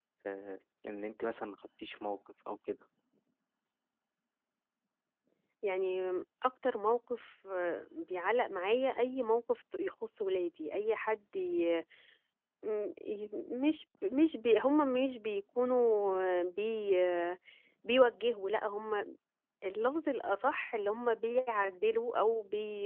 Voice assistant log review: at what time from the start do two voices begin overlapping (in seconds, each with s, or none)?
none